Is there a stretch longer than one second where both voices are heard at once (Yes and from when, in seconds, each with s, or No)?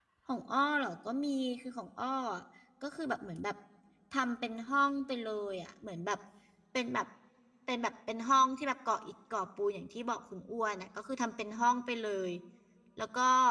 No